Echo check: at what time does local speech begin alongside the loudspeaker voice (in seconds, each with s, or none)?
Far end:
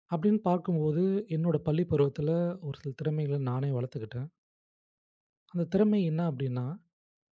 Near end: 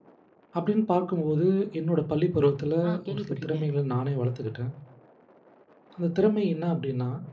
2.9 s